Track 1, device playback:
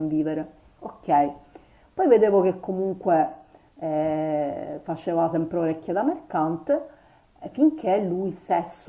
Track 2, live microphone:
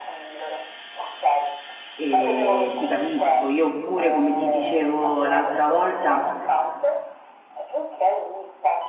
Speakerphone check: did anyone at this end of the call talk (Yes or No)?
Yes